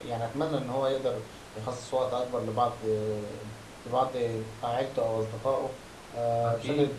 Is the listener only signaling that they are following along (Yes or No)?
No